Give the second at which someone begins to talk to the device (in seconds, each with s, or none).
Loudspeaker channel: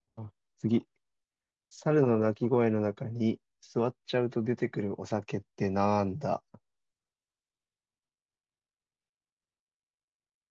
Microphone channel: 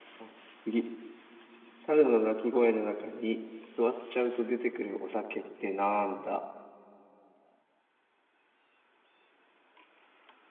none